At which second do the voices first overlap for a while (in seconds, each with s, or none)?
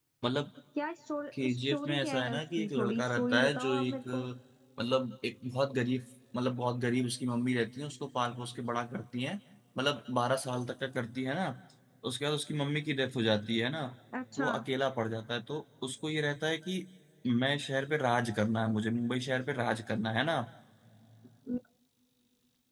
1.4 s